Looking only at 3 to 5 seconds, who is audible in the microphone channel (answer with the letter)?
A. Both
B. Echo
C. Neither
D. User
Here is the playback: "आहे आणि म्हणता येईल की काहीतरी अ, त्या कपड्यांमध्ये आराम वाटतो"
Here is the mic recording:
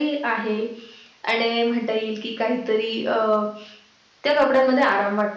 B